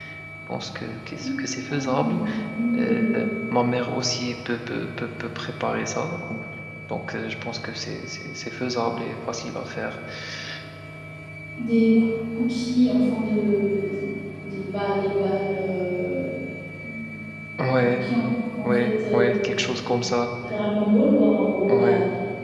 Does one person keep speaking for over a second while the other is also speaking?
Yes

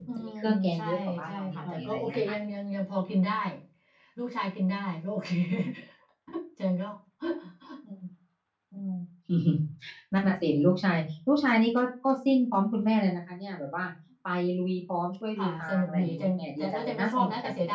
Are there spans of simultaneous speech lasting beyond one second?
Yes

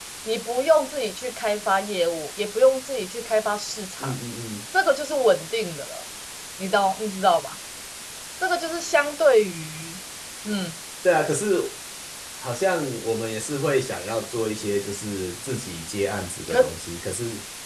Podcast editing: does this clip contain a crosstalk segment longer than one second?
No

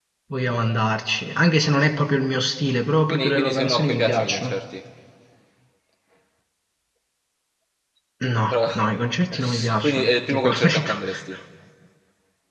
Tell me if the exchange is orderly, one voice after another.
No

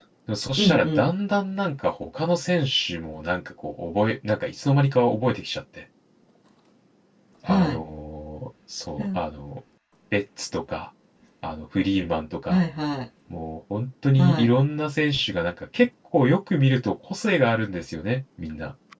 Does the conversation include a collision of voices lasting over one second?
No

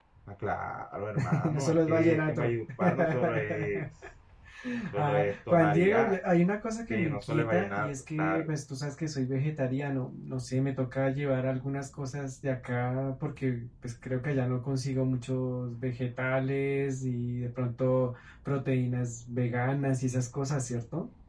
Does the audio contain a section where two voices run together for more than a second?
Yes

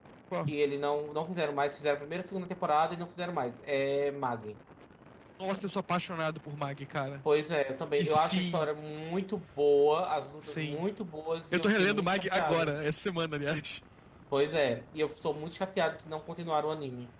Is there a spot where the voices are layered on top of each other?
Yes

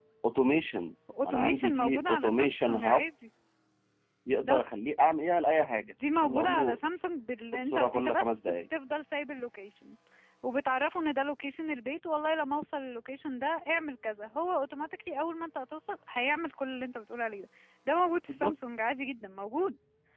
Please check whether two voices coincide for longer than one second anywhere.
Yes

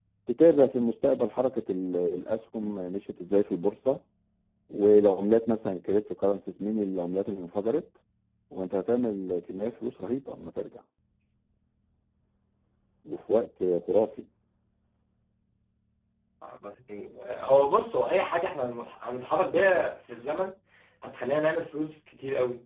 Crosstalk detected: No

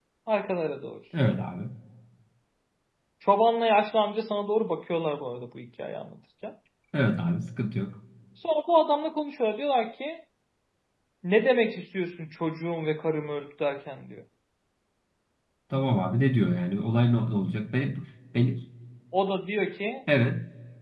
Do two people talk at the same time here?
No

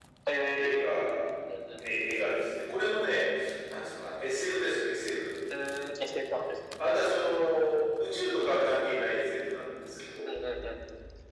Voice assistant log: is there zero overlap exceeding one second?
Yes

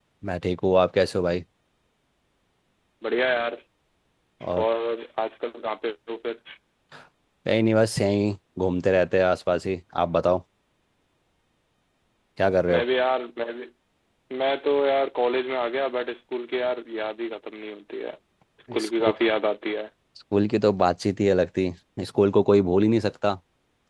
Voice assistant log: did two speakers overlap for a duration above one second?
No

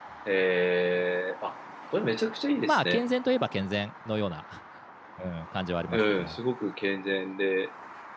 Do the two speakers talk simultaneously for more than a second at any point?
No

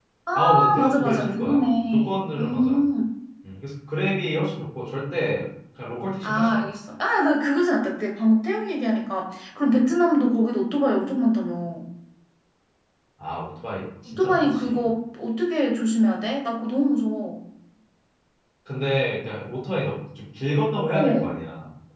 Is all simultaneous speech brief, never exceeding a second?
No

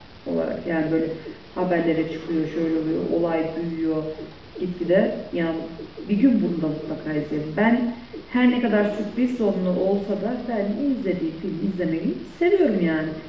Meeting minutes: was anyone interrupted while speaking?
No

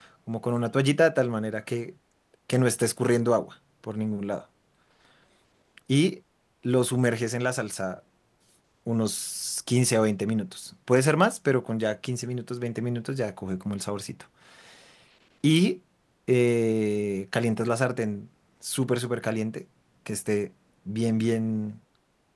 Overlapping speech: No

